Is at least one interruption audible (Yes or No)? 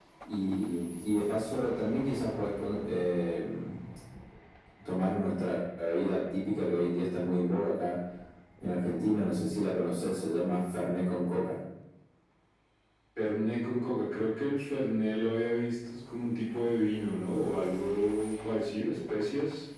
No